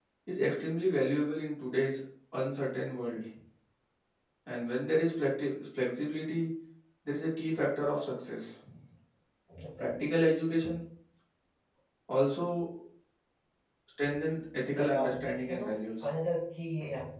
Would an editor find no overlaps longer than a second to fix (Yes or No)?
No